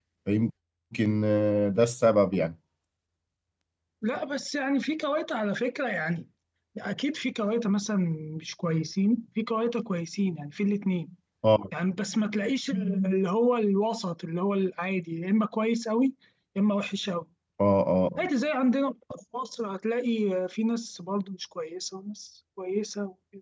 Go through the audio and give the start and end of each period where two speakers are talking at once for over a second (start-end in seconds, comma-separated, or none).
none